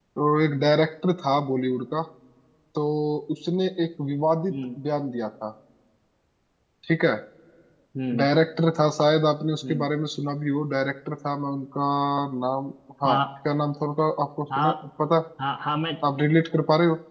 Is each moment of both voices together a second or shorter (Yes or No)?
Yes